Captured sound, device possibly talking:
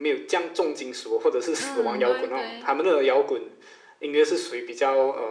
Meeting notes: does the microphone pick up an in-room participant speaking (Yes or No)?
Yes